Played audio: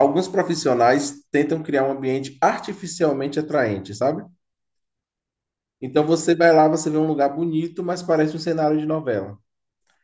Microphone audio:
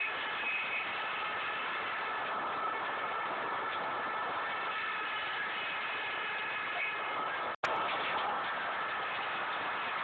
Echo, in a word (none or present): none